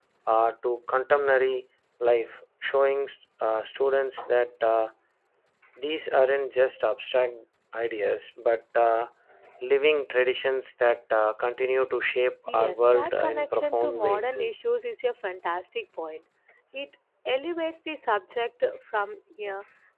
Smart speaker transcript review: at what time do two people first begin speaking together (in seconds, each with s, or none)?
12.4 s